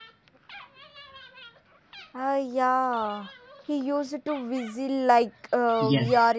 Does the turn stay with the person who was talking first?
No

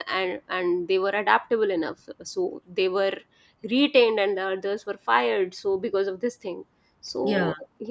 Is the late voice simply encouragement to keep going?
Yes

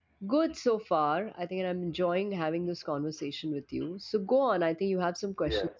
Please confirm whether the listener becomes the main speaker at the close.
Yes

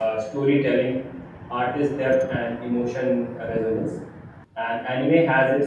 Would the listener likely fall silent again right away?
Yes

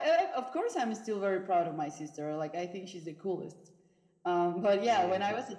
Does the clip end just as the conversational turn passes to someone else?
No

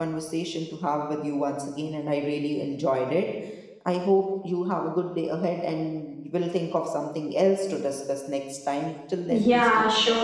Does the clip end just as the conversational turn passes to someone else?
Yes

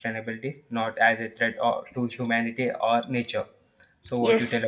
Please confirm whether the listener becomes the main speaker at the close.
Yes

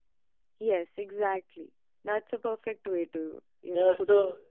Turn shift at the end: Yes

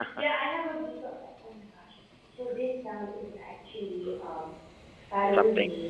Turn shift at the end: No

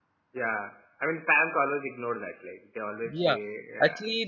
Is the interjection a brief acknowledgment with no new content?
No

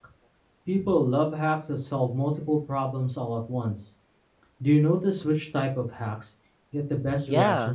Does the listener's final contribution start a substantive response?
Yes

